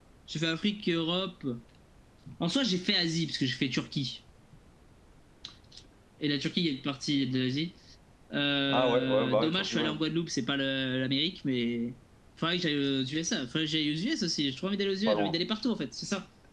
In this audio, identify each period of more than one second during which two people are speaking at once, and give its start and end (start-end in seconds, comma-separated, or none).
8.7-9.9